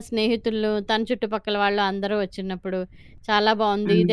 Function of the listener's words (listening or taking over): listening